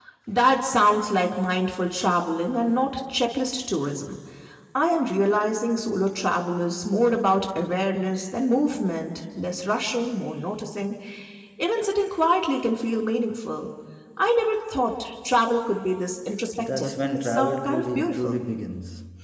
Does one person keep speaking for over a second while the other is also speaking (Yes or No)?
Yes